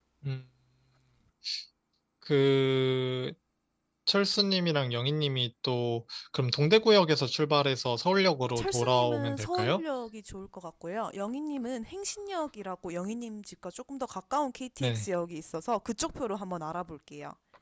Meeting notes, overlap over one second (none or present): present